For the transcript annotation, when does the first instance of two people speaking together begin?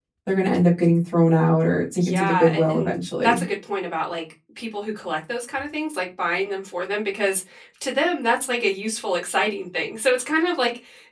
2.0 s

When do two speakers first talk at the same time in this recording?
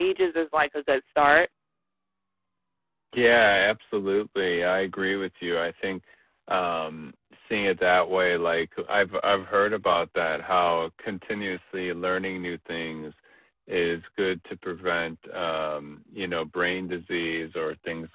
none

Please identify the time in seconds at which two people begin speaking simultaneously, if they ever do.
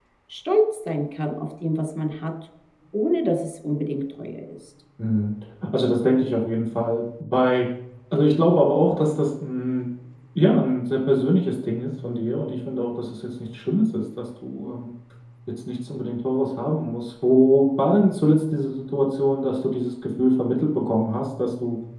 none

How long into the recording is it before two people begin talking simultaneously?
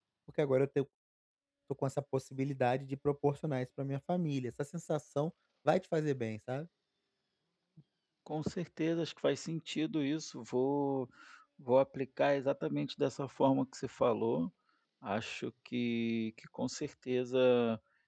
none

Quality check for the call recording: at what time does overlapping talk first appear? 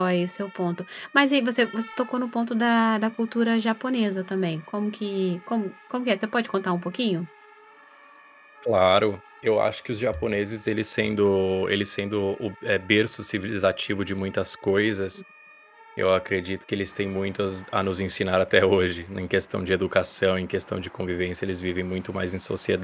none

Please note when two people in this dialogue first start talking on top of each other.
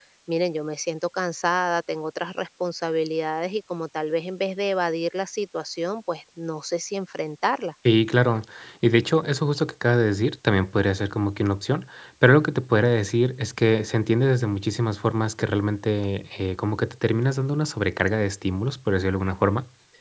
none

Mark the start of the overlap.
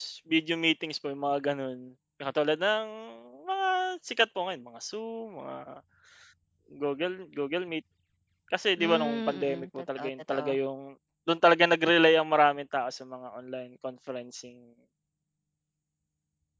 8.8 s

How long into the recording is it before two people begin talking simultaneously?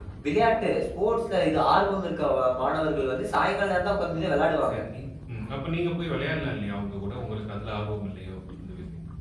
none

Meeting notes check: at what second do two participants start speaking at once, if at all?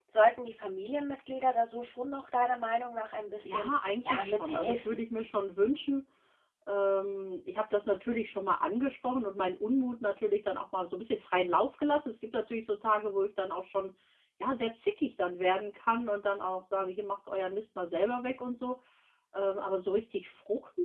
3.4 s

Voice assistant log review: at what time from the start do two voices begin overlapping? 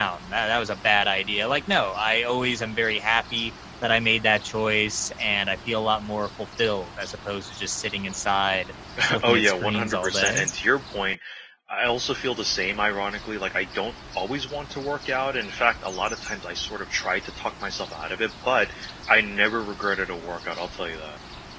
9.0 s

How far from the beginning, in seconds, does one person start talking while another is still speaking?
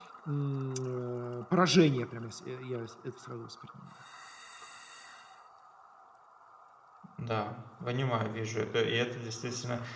none

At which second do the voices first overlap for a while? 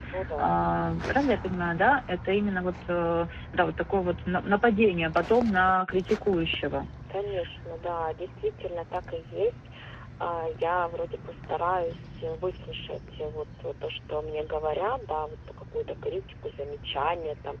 none

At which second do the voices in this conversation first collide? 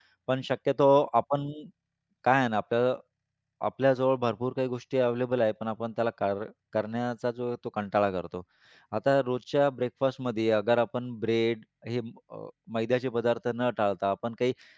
none

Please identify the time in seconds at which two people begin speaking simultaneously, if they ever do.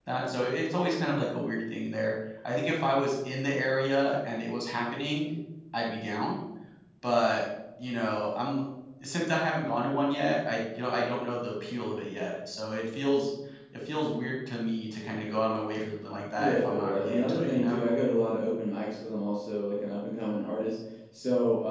16.4 s

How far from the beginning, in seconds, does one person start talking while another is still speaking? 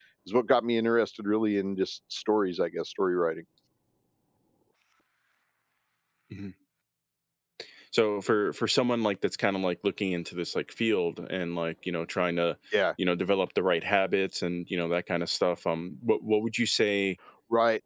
none

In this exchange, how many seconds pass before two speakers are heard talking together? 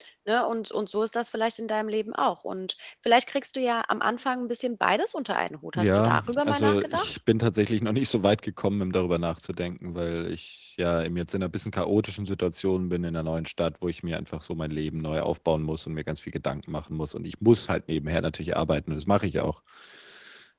5.8 s

